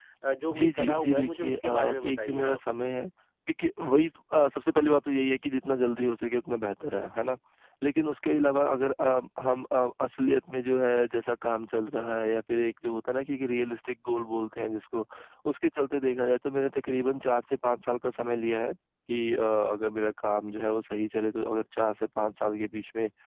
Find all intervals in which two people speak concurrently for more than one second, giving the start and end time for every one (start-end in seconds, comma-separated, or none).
0.6-2.6